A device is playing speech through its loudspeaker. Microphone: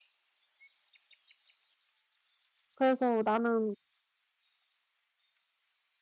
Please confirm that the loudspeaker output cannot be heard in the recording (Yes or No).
Yes